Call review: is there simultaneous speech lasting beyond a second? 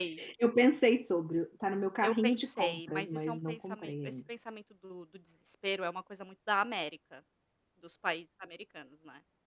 Yes, from 2.0 s

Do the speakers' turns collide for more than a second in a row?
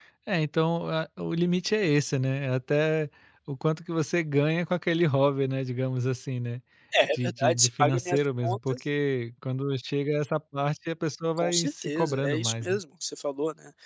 Yes, from 7.1 s

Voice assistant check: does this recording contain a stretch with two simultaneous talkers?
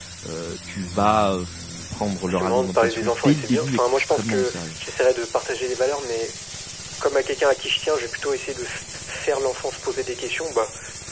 Yes, from 2.3 s

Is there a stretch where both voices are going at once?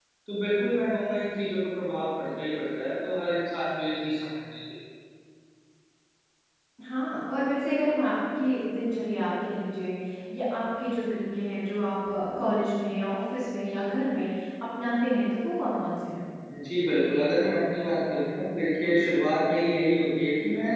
No

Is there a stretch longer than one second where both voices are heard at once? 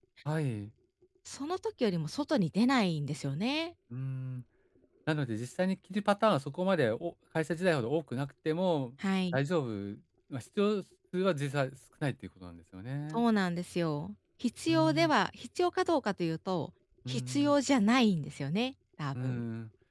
No

